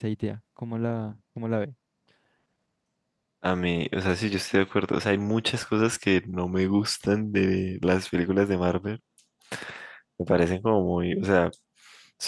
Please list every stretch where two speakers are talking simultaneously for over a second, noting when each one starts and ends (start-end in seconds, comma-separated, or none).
none